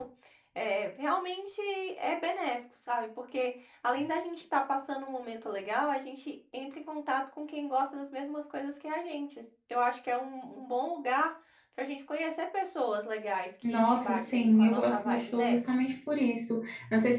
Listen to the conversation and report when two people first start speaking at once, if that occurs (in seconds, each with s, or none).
13.6 s